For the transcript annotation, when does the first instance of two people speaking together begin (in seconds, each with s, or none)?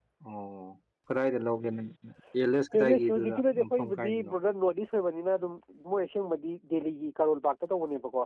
2.9 s